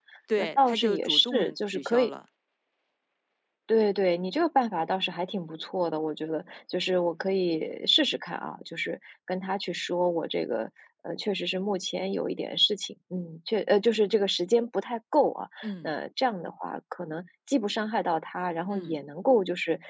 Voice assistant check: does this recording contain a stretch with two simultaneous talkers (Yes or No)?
Yes